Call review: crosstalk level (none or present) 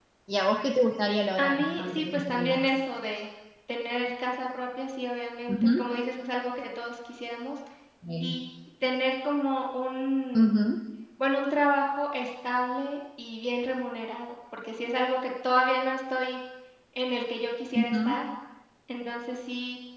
present